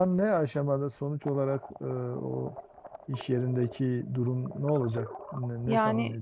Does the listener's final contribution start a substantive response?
Yes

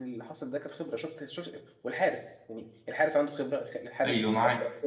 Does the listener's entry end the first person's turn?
Yes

